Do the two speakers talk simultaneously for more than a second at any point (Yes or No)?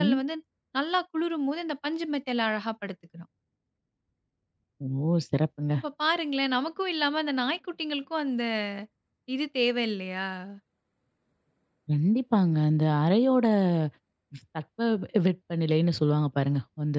No